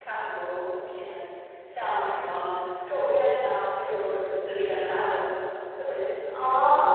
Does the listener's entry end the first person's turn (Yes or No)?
Yes